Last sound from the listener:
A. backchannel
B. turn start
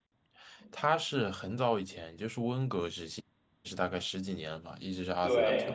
B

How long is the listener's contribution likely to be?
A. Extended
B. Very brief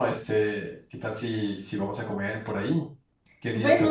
A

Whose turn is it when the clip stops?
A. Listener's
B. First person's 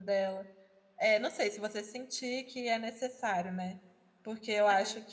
B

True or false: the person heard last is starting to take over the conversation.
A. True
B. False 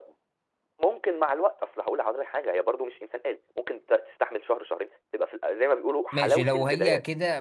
A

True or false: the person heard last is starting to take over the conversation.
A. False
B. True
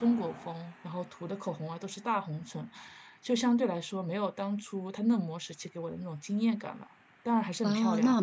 B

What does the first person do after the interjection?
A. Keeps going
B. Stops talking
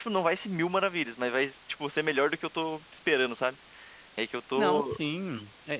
B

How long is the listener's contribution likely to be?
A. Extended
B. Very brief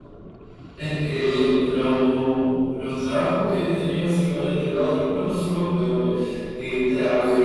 B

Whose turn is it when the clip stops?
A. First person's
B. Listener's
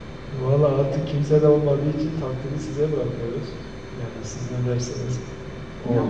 B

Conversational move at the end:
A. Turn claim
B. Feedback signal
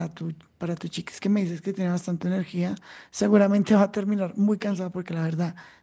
B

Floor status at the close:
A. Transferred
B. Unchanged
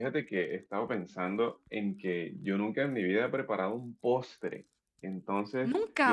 B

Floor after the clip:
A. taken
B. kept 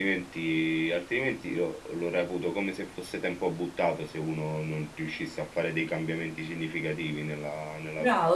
A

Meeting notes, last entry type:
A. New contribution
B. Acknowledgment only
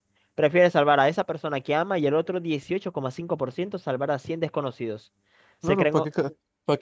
A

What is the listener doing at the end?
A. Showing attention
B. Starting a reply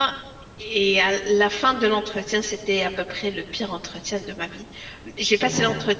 A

